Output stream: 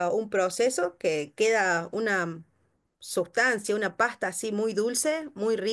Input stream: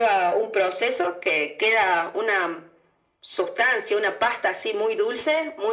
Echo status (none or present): present